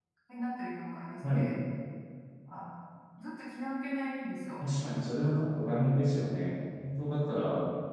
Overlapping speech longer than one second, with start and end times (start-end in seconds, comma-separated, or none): none